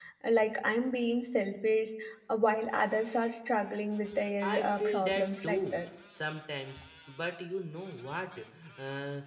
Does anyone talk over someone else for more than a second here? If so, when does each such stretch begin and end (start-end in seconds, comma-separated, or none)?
4.4-5.8